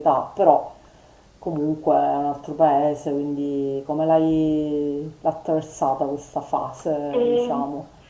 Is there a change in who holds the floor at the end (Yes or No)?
Yes